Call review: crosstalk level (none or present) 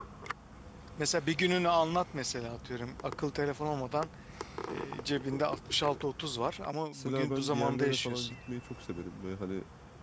present